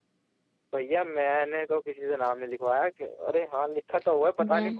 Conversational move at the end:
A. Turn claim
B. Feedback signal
B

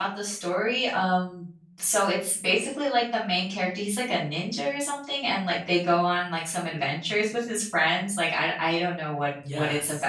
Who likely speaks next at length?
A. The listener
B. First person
A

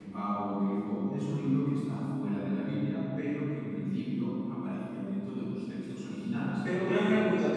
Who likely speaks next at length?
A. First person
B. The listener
B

